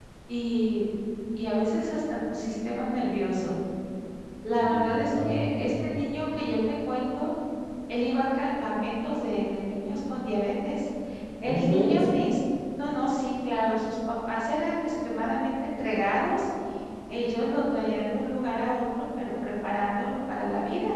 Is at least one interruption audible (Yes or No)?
Yes